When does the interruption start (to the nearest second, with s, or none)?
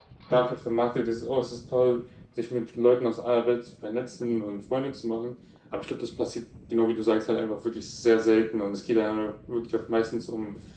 none